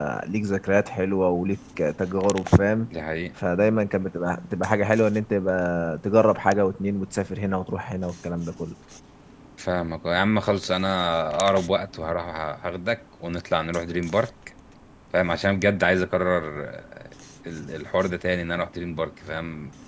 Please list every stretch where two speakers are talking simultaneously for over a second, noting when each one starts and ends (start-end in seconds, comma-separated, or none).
none